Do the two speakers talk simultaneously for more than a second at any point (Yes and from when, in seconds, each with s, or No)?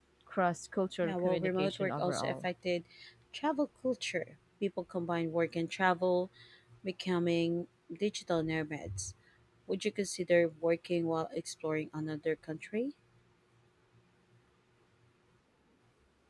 Yes, from 1.0 s